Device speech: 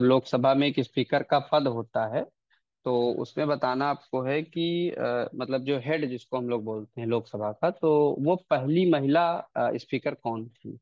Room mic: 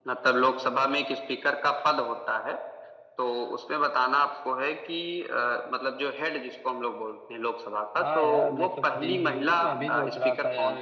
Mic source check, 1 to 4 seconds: echo only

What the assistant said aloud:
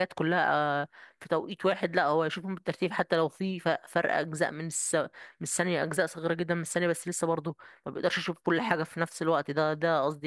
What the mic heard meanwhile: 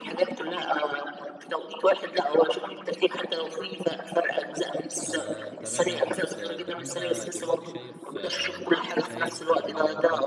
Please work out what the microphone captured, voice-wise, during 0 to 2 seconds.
echo only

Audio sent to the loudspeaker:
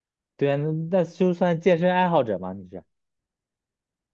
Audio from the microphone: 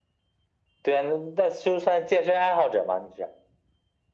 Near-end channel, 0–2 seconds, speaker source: echo only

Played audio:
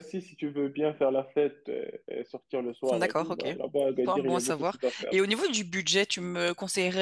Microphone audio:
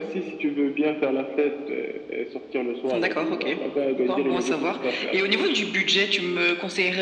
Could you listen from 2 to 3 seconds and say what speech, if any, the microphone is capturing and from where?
echo only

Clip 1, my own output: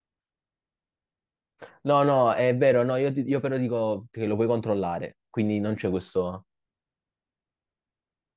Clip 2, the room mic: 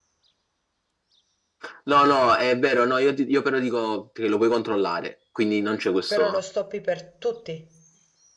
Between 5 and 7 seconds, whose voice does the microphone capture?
both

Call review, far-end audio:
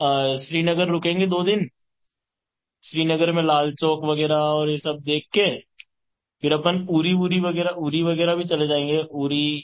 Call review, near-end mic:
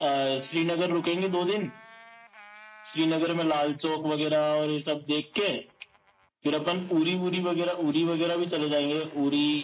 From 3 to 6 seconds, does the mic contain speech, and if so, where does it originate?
echo only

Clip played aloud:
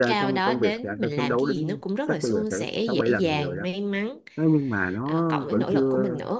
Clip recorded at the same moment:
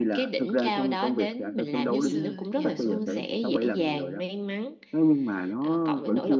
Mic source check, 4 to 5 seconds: echo only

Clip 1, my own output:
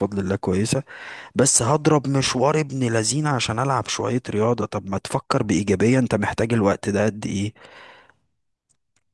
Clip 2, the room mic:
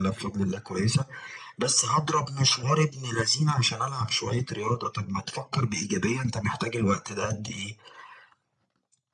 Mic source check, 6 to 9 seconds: echo only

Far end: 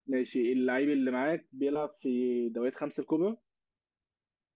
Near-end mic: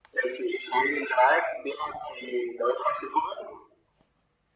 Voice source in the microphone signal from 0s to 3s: echo only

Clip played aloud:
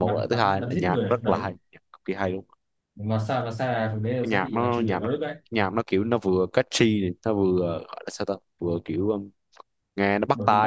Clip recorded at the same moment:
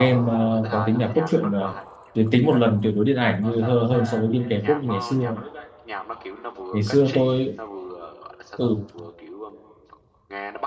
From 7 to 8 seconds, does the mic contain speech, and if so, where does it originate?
both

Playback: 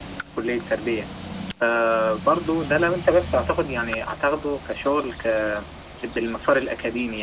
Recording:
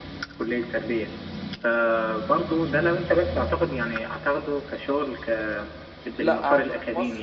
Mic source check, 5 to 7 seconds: both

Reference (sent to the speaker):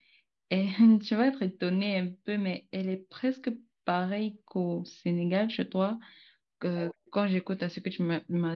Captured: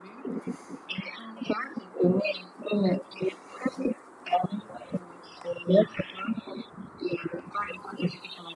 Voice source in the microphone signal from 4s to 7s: echo only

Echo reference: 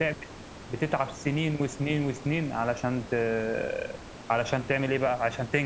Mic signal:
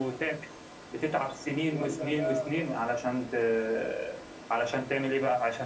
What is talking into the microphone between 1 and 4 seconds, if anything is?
both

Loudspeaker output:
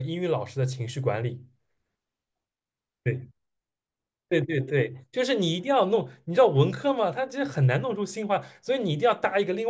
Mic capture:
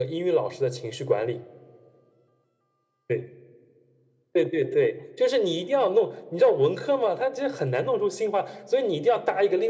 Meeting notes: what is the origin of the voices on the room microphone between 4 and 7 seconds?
echo only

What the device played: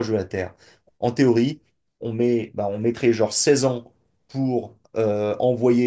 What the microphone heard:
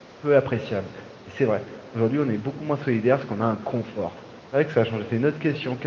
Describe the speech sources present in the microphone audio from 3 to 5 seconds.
user only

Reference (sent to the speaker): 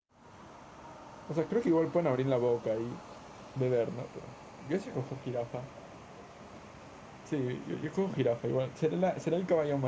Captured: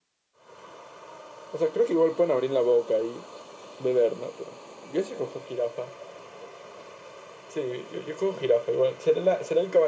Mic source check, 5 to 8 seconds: echo only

